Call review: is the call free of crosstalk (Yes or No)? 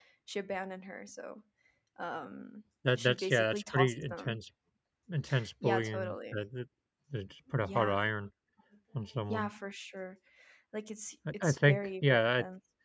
No